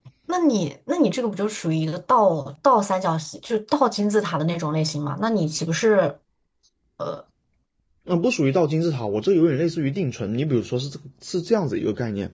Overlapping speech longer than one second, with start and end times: none

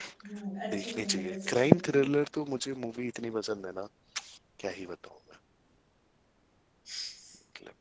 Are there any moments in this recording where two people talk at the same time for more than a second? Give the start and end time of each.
0.7-1.9

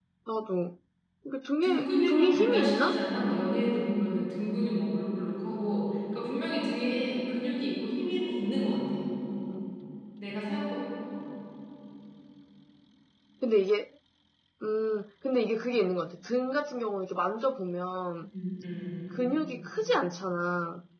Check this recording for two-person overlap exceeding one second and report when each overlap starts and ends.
1.6-3.0

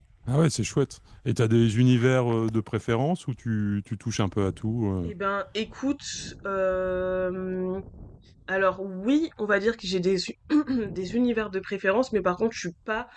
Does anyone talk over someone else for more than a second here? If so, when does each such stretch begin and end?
none

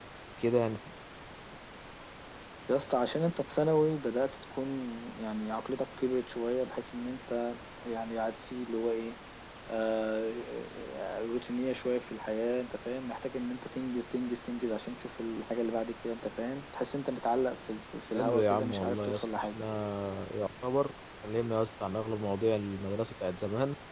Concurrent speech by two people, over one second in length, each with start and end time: 18.1-19.6

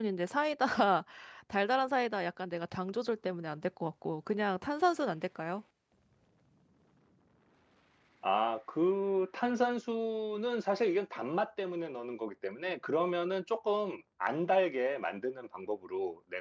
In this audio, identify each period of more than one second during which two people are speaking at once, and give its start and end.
none

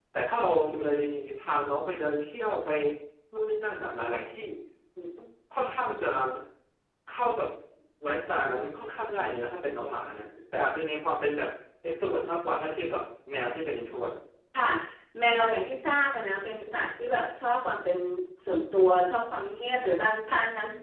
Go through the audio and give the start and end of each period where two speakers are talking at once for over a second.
none

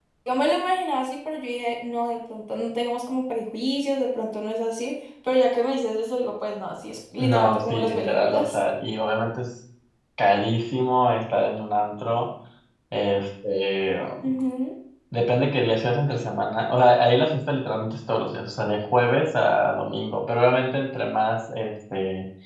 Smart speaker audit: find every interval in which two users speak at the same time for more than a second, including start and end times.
7.2-8.6

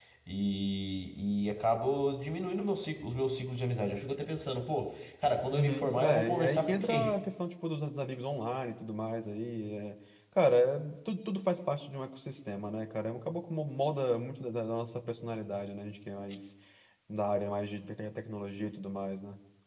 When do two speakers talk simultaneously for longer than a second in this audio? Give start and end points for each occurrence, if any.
5.5-7.1

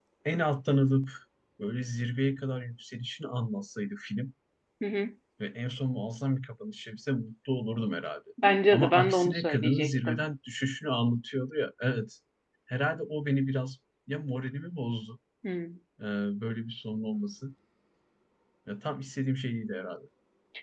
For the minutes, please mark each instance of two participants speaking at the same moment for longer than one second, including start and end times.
8.7-10.2

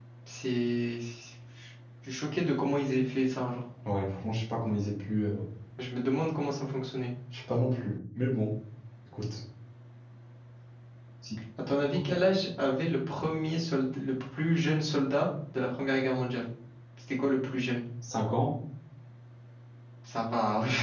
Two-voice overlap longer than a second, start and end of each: none

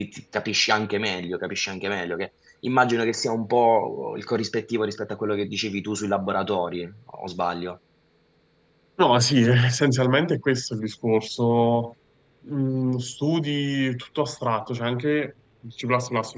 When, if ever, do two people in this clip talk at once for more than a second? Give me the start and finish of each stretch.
none

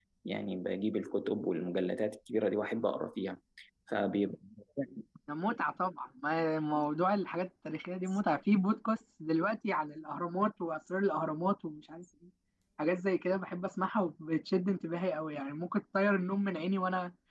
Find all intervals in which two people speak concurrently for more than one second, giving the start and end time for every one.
none

